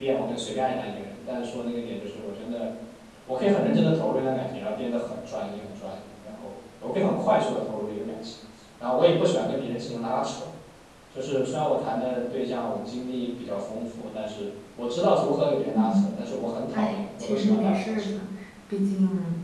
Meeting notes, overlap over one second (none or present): present